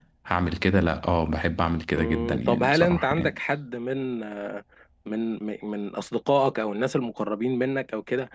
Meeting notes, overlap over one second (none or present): present